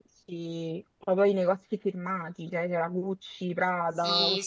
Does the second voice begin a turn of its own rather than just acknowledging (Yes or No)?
Yes